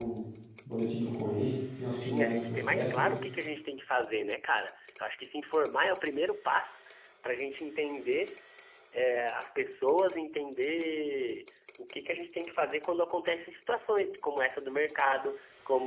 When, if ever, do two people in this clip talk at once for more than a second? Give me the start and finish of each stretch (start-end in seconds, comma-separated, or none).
1.9-3.1